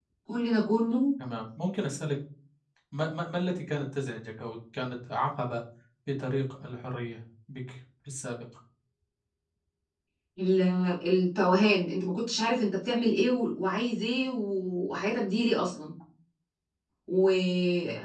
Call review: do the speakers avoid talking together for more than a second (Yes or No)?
Yes